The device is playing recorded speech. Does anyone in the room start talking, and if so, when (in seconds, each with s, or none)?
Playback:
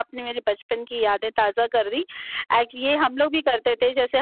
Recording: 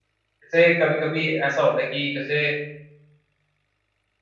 0.4 s